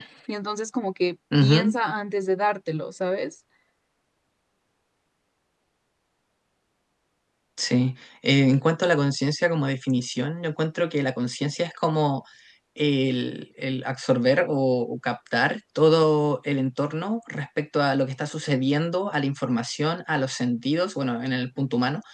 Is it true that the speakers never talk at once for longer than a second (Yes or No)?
Yes